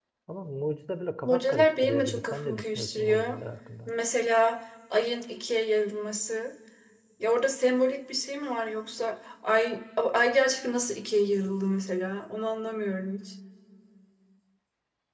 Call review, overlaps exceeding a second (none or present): present